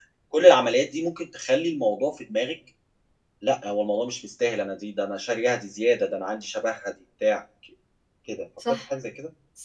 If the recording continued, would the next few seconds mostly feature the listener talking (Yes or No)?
Yes